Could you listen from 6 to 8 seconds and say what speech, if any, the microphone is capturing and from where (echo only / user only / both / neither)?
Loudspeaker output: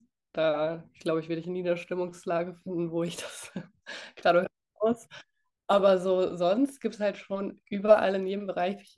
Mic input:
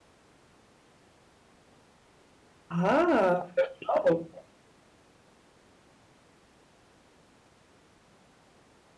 neither